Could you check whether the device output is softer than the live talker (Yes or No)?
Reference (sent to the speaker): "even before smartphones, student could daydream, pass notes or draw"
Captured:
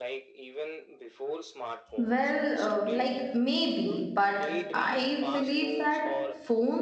Yes